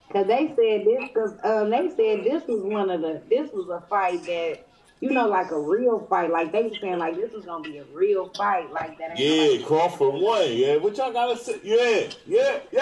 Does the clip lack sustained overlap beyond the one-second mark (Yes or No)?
Yes